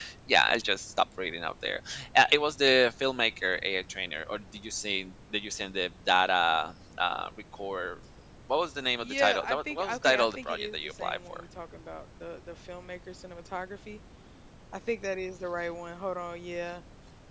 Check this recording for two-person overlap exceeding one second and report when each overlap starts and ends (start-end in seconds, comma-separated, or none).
9.0-11.4